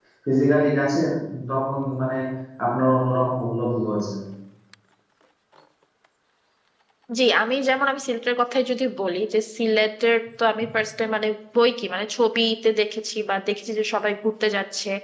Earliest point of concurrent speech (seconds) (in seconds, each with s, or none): none